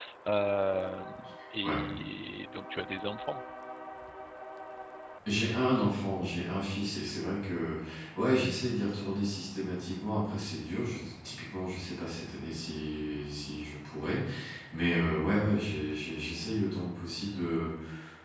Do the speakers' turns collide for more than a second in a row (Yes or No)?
No